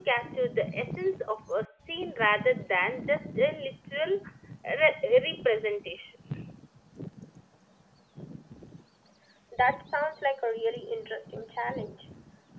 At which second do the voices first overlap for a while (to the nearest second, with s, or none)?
none